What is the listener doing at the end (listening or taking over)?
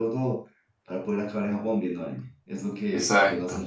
listening